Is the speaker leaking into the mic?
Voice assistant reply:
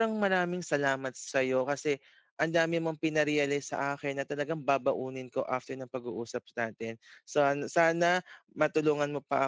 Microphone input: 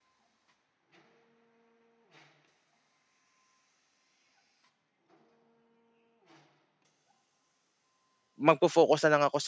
No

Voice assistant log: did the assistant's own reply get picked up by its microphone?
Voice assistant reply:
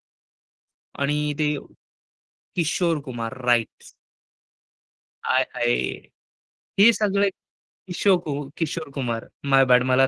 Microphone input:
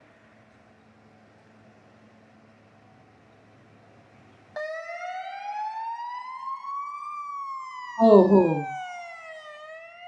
No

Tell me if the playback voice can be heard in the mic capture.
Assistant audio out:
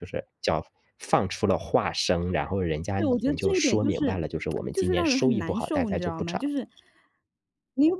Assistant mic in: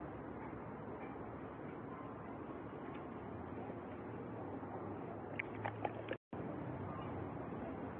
No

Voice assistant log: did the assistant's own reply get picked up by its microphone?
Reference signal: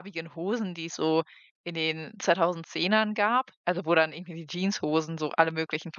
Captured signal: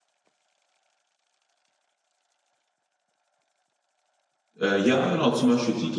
No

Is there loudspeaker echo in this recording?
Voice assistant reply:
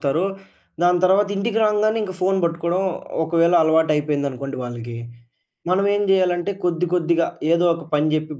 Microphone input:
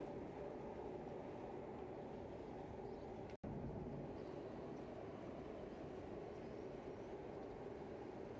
No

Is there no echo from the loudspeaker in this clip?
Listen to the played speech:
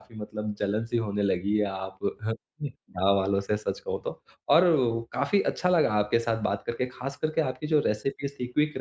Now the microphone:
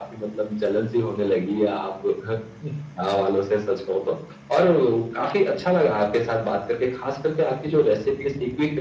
No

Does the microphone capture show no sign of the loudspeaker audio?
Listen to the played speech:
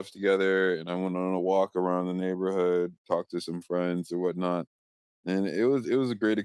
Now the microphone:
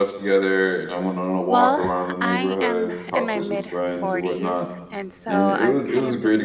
No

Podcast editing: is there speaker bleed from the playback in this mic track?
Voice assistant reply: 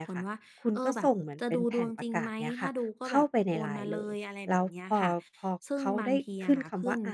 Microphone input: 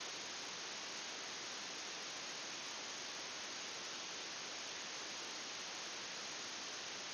No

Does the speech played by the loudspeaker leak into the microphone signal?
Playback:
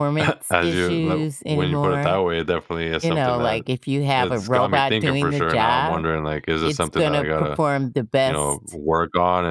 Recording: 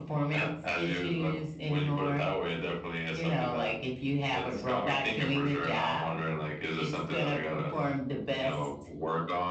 Yes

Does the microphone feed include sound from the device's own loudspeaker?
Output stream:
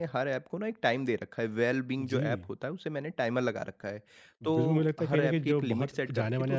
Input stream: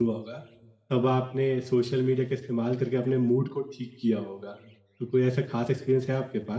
No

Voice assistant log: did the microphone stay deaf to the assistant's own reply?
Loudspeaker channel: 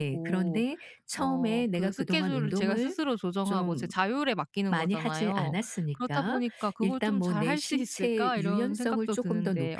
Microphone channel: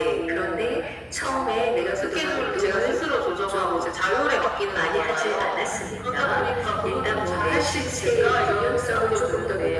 No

